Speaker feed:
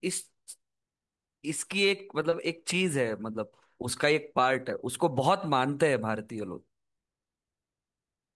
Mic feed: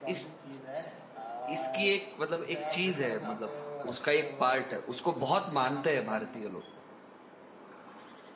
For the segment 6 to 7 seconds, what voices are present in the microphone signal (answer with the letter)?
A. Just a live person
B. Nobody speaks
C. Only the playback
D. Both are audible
D